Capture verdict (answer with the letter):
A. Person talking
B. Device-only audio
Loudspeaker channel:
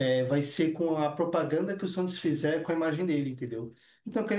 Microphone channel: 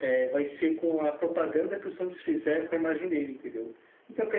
B